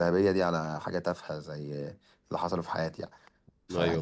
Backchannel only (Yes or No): Yes